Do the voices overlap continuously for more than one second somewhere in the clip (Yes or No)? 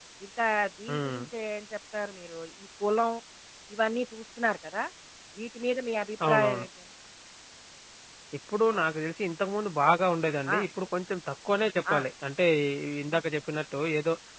No